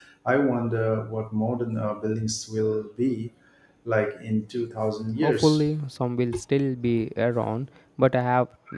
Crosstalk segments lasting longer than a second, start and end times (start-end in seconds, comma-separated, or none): none